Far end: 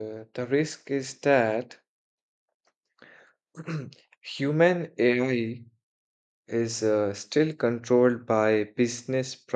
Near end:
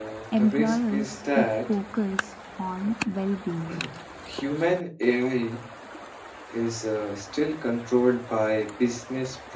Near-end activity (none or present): present